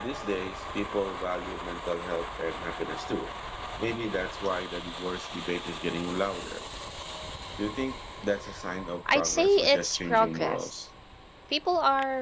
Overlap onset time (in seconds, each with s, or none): 9.2 s